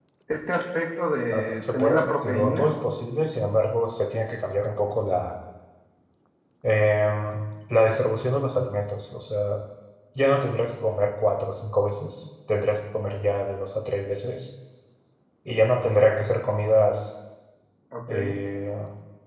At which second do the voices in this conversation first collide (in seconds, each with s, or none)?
1.3 s